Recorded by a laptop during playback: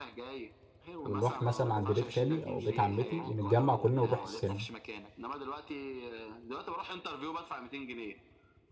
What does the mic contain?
both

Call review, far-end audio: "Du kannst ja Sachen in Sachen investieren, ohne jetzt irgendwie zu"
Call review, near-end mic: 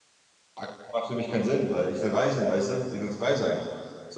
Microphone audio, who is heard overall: user only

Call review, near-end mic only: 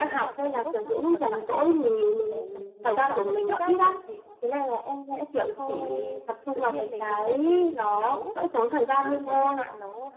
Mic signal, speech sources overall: both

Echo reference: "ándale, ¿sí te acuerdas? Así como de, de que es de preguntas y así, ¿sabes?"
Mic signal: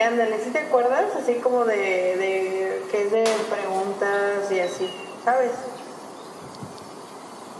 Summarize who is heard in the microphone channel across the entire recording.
echo only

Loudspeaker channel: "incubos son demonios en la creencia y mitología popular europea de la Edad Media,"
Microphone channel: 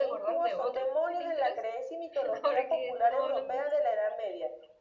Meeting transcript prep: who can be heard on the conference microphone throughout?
both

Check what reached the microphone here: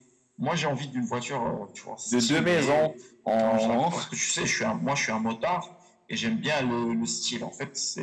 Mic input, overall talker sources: both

